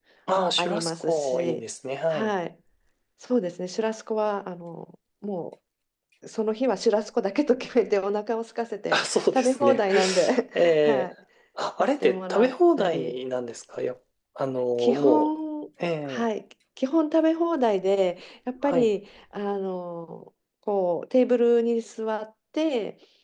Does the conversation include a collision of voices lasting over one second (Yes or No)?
Yes